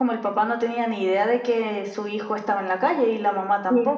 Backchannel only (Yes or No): No